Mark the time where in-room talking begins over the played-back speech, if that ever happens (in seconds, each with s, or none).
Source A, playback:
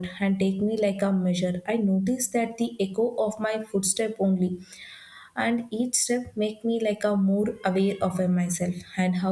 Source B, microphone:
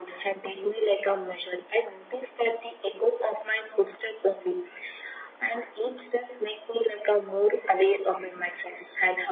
none